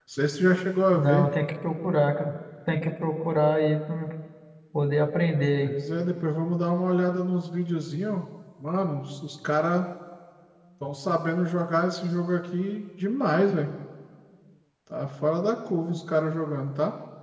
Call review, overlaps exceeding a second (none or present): none